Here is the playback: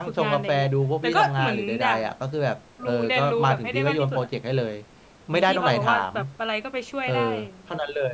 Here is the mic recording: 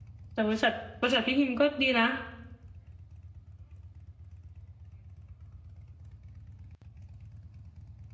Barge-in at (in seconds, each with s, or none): 0.3 s